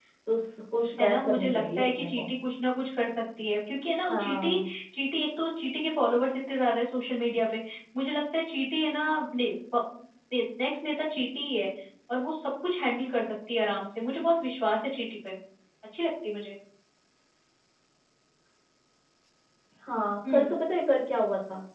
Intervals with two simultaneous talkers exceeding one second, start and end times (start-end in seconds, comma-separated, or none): 1.0-2.3